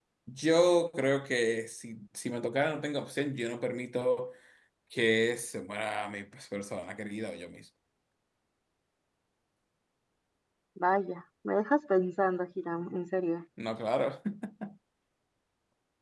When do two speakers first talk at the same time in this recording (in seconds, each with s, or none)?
none